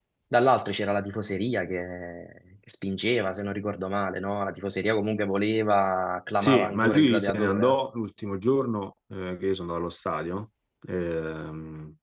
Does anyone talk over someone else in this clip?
Yes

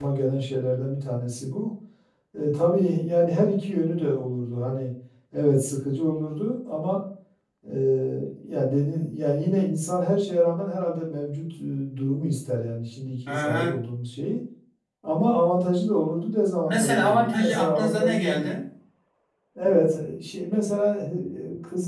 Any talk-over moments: Yes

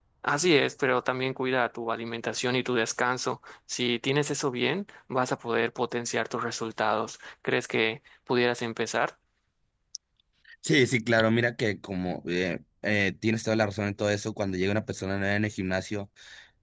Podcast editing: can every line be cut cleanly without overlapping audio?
Yes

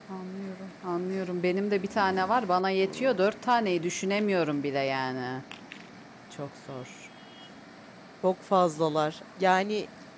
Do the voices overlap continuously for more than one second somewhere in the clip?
No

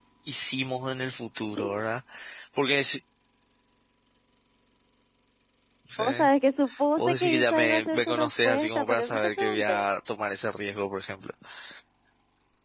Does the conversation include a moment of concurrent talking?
Yes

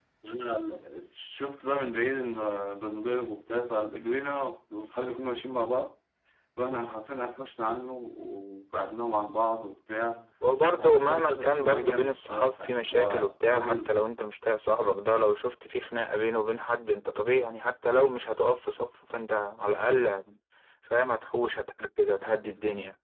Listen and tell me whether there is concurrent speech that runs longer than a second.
Yes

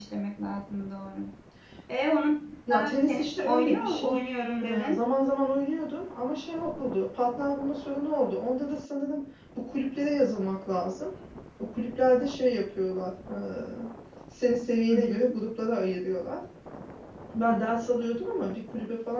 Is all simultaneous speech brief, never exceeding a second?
No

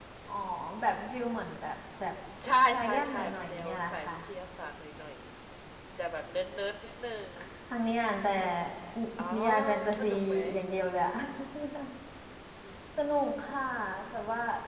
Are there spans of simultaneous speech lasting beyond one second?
Yes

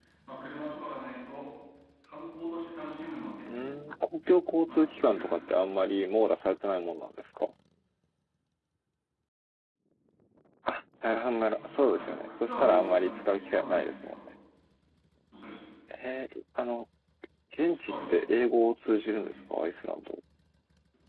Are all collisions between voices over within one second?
No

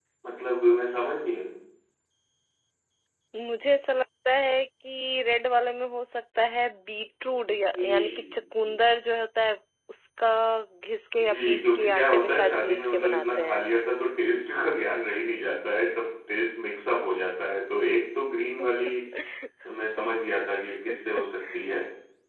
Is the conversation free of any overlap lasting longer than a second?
No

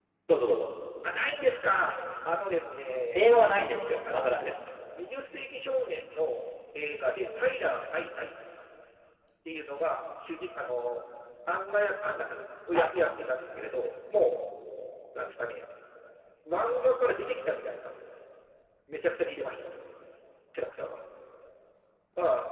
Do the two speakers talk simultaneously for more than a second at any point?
No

